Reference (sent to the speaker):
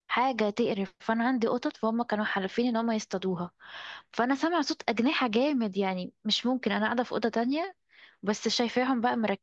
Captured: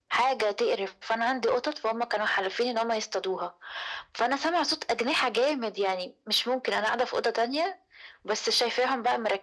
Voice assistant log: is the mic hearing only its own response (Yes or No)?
Yes